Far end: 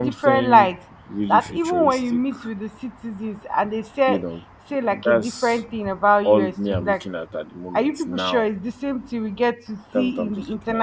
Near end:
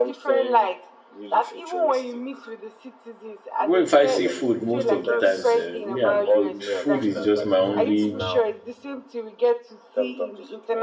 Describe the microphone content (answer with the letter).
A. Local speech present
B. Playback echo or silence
A